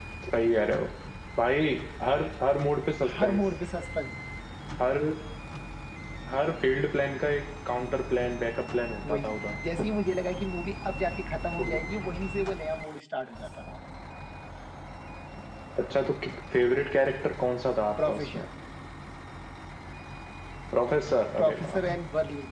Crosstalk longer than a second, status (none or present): none